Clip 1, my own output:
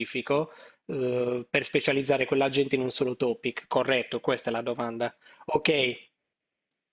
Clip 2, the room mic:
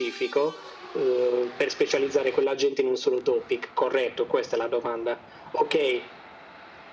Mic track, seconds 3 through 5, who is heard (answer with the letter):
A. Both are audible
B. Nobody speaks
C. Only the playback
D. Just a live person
C